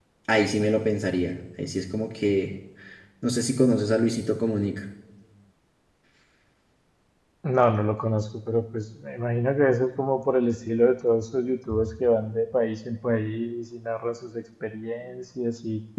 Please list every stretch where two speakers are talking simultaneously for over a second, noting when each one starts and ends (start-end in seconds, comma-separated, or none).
none